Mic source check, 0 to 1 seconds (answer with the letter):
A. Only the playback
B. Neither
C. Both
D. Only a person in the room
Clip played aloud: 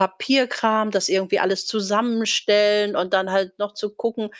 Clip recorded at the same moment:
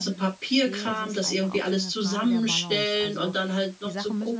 C